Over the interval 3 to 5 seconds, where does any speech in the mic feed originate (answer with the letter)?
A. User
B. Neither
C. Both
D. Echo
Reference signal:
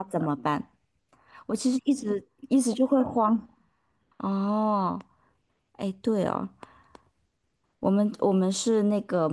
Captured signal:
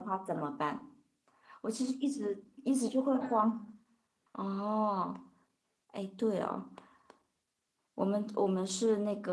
C